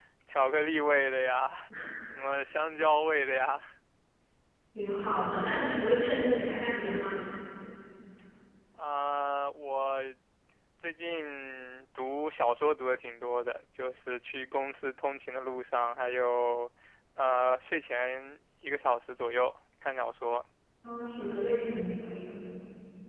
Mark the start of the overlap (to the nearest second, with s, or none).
none